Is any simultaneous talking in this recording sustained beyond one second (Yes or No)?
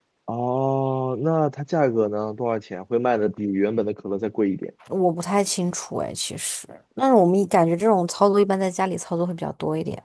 No